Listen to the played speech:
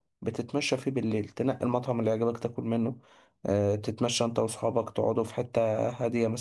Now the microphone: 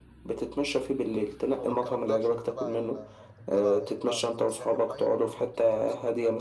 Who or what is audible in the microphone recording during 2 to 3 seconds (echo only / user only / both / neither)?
both